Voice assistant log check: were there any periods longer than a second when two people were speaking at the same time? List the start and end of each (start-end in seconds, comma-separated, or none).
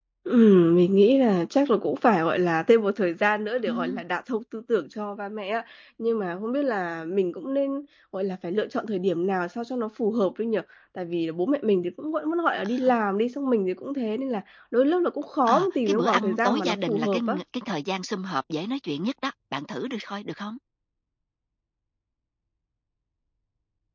15.5-17.4